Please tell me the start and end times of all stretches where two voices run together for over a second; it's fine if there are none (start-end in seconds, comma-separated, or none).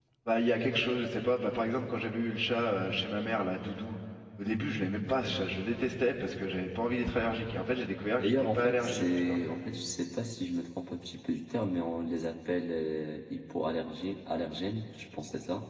8.2-9.4